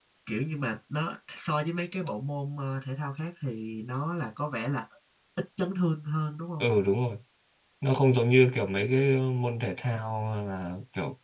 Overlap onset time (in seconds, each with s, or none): none